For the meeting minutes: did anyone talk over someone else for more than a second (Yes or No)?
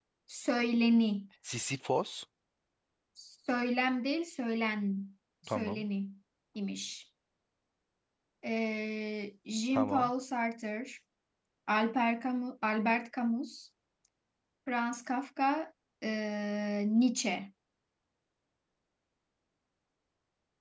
No